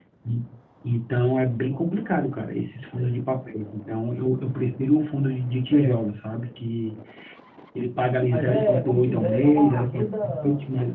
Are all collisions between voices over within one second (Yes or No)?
No